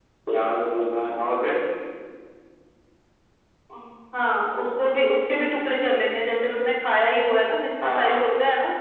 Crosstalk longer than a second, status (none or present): none